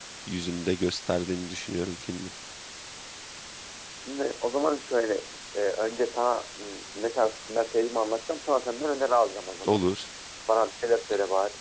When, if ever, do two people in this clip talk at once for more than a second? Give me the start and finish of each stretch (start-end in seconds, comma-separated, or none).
none